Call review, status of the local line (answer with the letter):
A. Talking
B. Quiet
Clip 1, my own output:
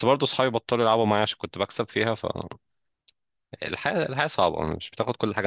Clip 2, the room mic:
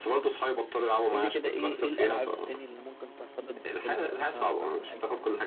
A